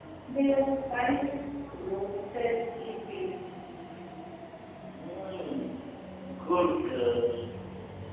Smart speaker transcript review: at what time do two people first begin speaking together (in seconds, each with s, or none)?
none